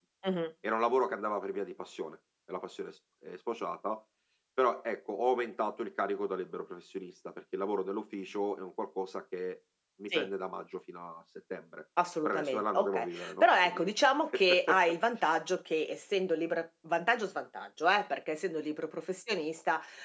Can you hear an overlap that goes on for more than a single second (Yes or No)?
Yes